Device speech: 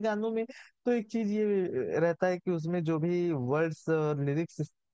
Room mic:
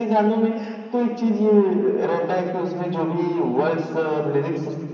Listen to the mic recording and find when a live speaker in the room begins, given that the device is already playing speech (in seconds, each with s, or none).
none